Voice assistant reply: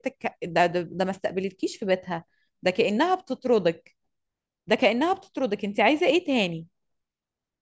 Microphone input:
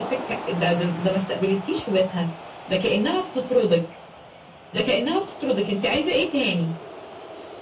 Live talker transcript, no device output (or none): none